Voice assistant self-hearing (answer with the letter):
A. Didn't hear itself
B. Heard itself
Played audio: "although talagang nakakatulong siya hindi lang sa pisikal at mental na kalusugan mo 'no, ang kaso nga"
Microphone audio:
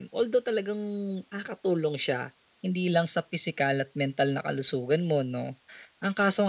B